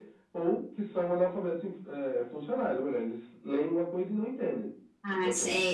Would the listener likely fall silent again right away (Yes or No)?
No